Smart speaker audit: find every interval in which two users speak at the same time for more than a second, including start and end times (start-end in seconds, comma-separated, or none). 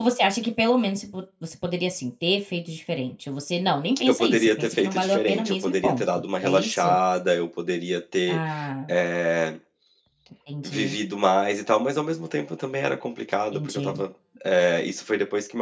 4.1-7.0